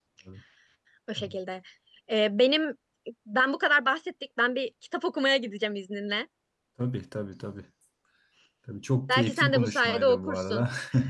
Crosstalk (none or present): present